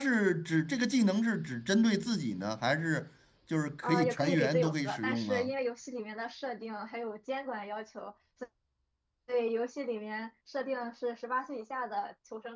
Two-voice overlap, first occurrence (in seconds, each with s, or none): 3.8 s